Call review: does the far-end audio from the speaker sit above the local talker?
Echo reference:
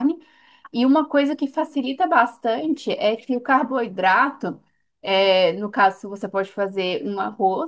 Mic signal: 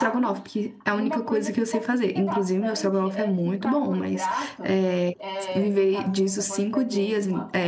No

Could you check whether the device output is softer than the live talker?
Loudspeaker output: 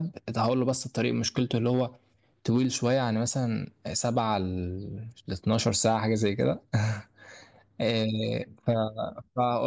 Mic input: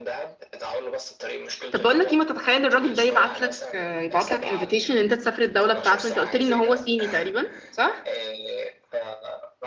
Yes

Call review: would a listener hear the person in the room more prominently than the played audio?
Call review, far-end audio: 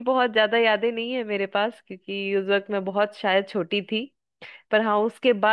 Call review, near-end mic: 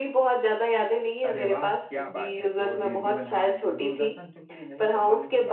No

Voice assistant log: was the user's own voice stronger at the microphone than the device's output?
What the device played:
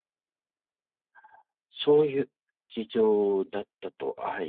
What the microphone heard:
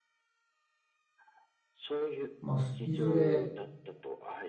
Yes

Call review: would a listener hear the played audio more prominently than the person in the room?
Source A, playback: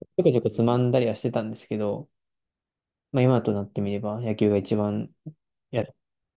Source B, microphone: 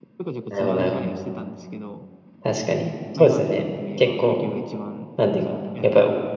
No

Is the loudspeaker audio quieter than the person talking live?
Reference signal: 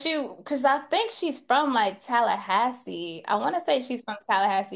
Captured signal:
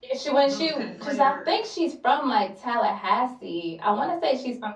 No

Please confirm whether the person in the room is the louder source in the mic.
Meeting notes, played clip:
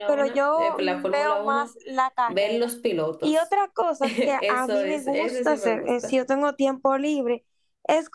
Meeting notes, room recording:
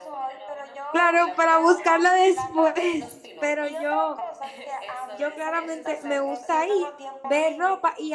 Yes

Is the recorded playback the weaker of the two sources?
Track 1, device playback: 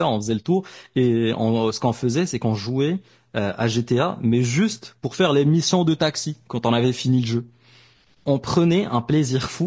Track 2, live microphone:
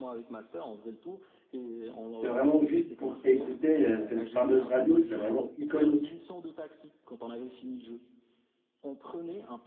Yes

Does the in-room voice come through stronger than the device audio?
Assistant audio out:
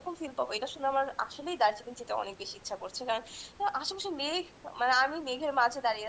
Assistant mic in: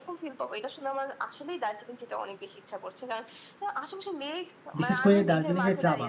Yes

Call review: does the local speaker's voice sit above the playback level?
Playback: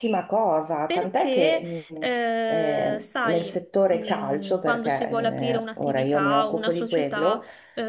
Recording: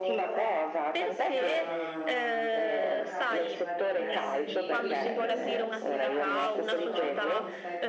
No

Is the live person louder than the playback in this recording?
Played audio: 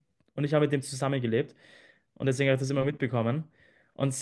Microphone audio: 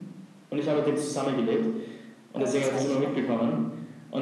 No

